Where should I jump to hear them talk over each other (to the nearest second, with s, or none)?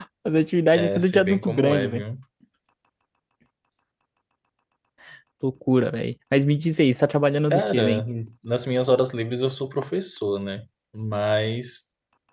1 s